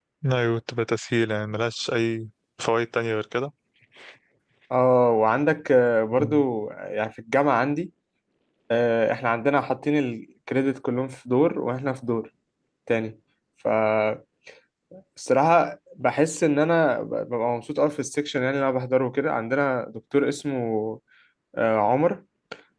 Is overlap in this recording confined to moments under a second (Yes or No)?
Yes